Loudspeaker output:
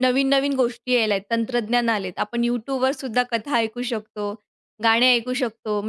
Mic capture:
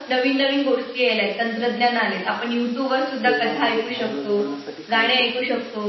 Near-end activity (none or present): present